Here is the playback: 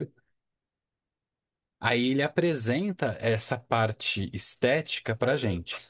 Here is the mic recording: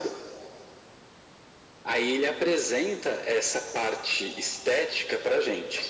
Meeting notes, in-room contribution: none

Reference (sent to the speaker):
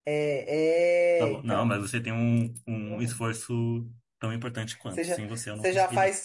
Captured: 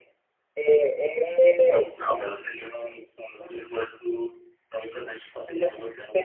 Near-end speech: none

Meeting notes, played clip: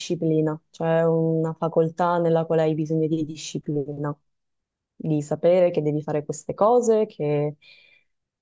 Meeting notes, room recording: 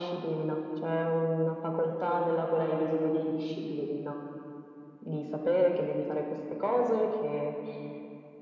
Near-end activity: none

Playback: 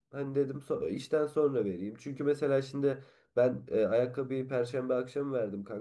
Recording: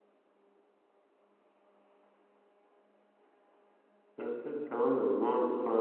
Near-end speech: present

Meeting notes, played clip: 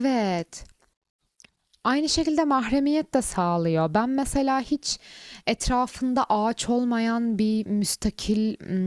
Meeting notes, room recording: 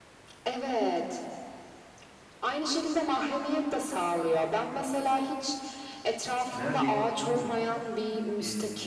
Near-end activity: present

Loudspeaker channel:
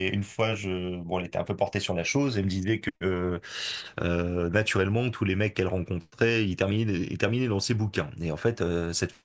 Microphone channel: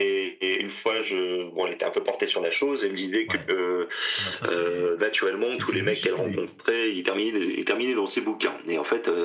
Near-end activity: present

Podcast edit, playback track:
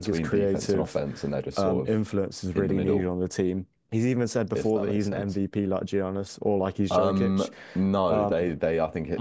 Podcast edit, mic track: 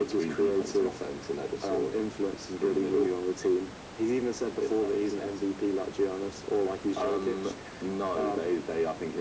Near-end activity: none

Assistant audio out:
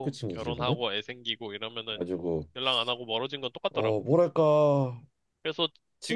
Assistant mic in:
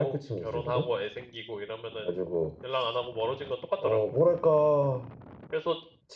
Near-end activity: none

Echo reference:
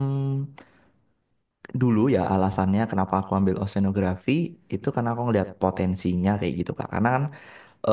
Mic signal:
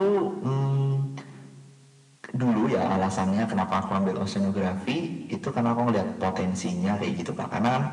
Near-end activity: none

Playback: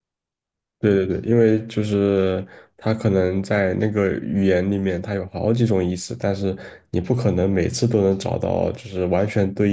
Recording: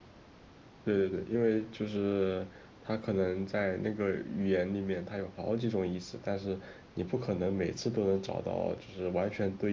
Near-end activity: none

